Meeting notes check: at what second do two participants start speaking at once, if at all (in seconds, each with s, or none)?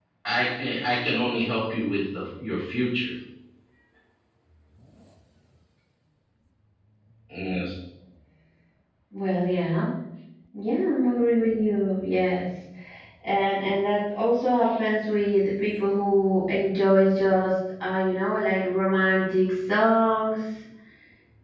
none